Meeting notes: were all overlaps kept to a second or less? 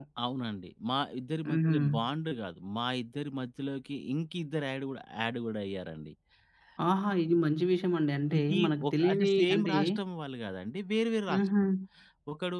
No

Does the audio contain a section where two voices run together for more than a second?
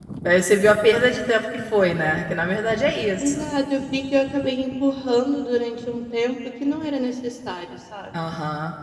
No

